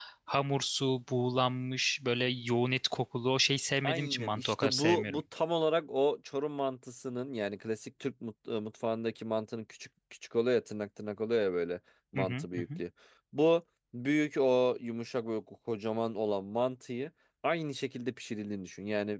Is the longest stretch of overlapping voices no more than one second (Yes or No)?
No